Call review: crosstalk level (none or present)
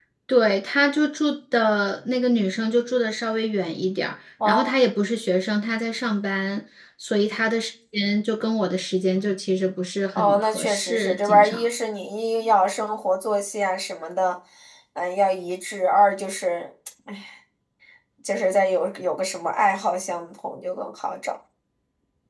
present